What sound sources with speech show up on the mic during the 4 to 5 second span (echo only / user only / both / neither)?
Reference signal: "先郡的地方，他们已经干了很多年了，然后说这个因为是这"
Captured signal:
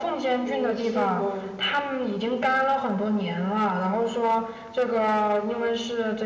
echo only